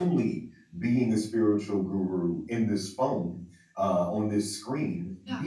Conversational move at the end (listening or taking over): listening